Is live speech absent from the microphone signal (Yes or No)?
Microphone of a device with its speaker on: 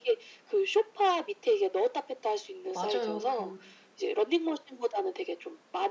No